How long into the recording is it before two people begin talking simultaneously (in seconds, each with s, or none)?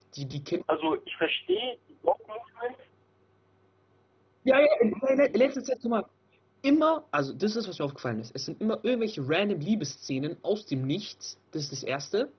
none